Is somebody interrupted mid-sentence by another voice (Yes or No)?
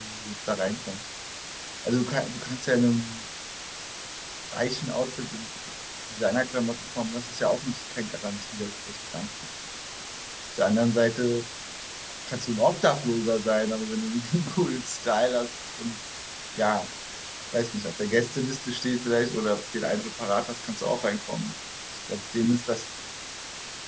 No